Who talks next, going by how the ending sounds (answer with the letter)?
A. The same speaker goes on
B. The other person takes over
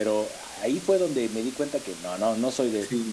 B